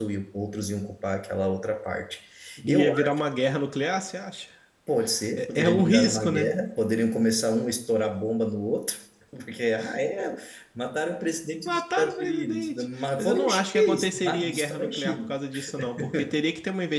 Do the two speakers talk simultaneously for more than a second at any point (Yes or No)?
Yes